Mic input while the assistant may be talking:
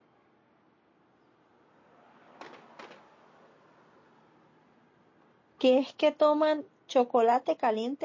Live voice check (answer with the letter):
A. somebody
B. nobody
A